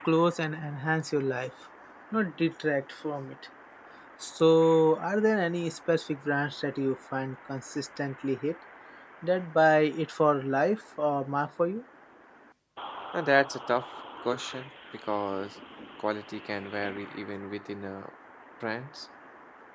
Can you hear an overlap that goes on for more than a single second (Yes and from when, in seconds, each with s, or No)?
No